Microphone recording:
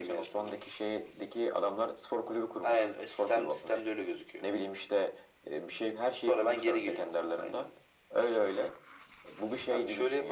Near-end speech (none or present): none